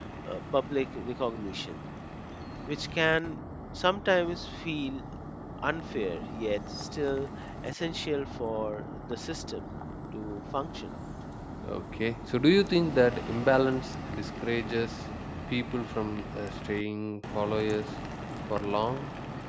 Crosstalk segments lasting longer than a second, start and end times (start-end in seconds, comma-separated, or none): none